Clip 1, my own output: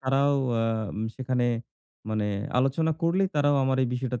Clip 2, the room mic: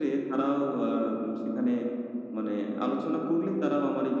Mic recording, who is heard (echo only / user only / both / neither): echo only